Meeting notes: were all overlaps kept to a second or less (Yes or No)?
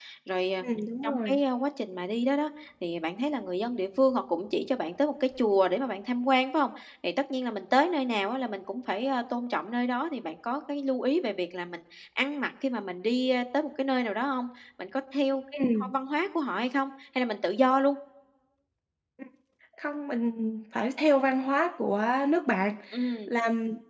Yes